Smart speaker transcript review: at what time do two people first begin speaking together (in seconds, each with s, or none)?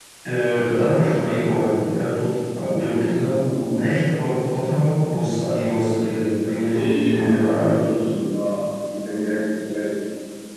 6.4 s